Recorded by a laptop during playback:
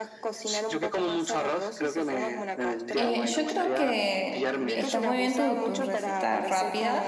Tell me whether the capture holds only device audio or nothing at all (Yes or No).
No